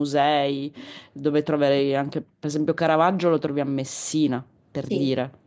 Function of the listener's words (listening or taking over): taking over